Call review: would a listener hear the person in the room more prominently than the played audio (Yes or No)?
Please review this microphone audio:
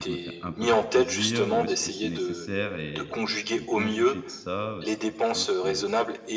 No